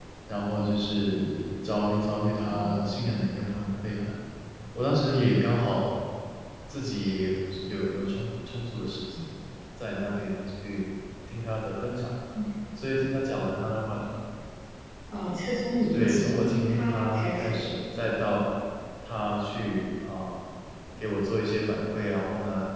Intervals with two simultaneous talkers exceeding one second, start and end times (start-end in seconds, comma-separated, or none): 15.9-17.7